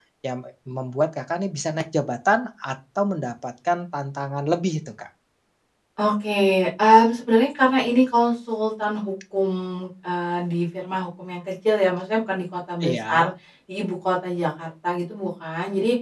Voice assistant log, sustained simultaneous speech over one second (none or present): none